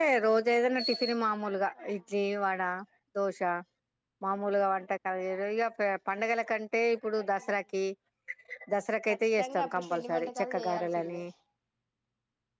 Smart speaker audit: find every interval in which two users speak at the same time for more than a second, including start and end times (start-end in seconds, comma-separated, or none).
9.1-11.2